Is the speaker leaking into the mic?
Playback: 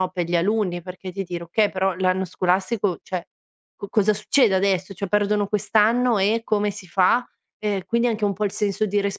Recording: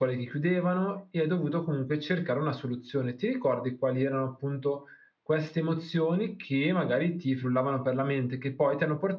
No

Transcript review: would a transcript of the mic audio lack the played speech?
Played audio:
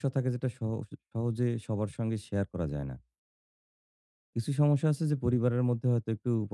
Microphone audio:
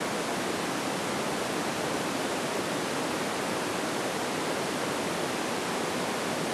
Yes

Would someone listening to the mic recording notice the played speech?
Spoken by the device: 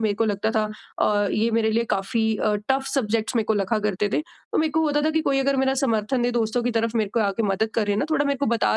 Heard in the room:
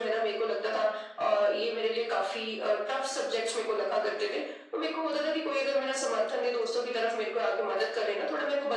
Yes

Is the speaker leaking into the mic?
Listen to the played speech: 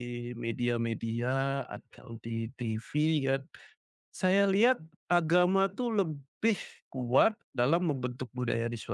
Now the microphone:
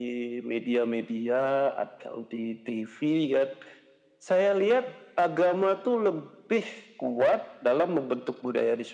Yes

